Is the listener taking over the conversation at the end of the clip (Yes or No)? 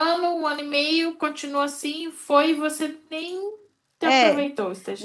Yes